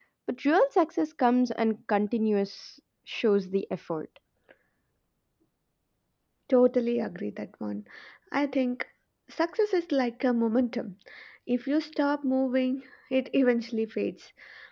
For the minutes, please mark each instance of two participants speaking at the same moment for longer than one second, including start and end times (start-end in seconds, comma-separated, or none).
none